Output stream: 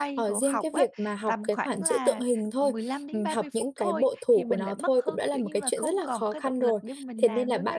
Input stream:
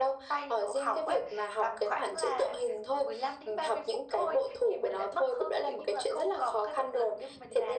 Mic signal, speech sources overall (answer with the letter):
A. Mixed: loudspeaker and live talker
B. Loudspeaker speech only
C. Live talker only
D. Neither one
B